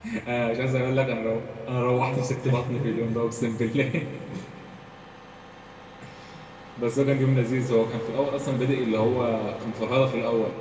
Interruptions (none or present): present